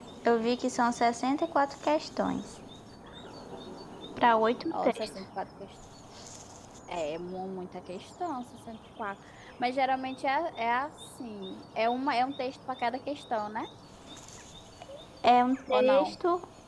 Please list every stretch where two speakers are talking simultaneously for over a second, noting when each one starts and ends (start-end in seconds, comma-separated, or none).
none